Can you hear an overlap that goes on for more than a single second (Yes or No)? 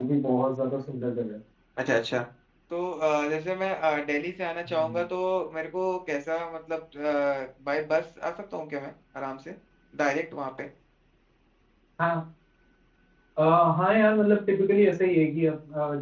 No